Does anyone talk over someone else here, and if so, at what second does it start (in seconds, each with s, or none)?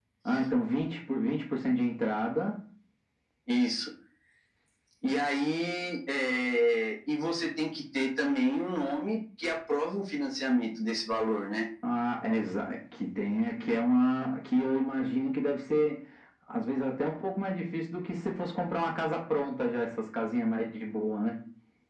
none